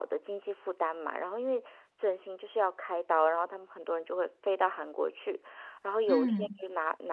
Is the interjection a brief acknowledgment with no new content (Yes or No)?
Yes